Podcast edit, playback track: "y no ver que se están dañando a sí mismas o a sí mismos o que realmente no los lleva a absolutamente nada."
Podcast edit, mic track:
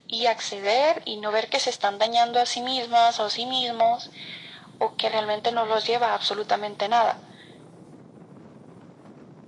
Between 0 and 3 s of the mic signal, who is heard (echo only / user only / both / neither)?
echo only